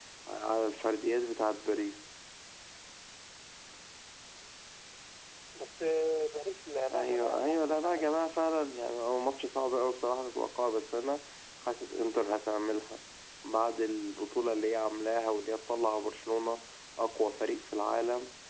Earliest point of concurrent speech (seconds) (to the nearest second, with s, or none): 7 s